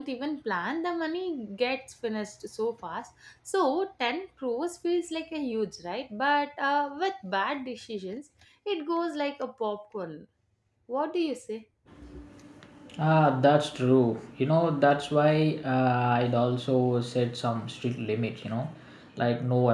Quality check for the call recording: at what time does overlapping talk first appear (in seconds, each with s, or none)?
none